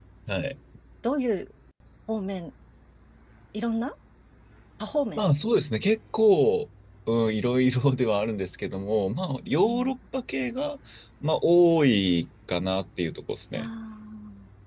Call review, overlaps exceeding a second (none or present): none